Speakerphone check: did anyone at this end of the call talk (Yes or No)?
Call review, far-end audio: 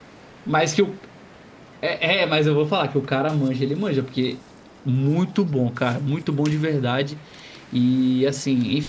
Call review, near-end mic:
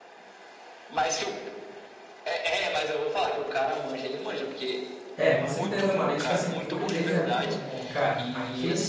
Yes